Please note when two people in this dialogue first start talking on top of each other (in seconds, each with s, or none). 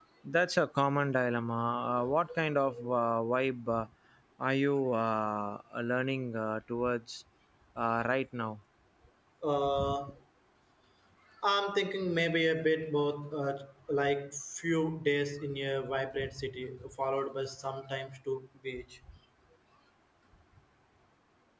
none